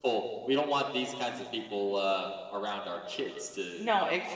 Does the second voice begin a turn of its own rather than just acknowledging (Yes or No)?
Yes